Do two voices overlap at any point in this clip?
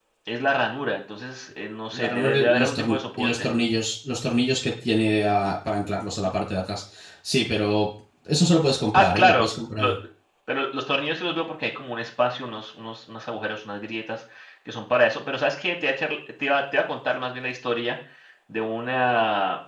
Yes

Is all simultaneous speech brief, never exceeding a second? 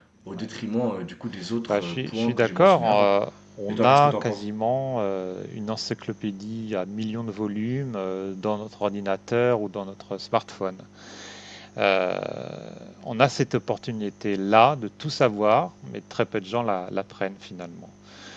No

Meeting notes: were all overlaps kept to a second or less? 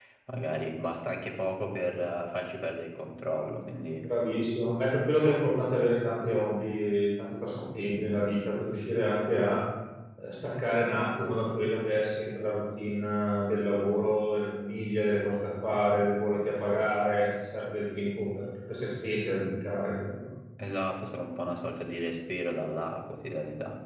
Yes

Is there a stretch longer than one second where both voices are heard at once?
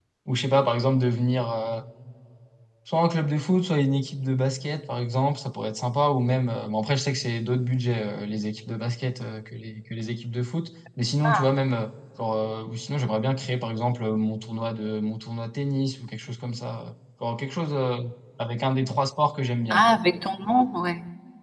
No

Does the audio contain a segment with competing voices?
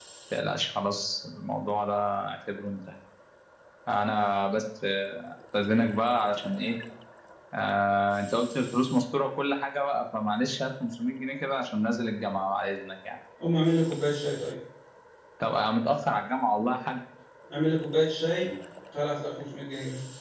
No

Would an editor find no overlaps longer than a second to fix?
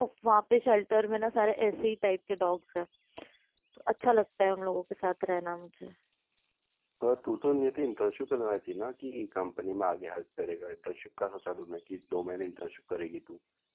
Yes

